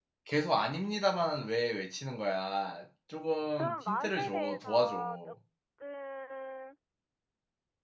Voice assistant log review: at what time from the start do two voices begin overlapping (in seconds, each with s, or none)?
3.6 s